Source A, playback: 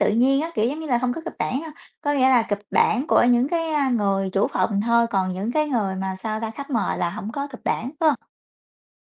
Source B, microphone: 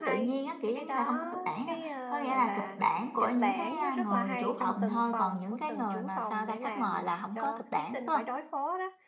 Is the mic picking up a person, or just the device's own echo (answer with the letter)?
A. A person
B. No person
A